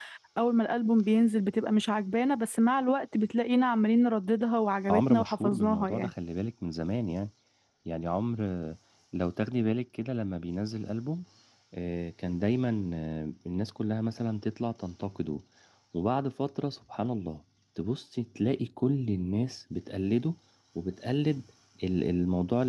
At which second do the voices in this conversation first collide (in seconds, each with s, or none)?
4.9 s